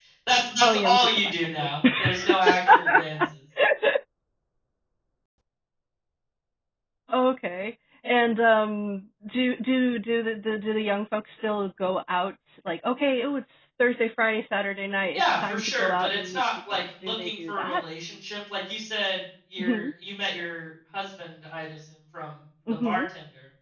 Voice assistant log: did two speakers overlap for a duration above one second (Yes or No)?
Yes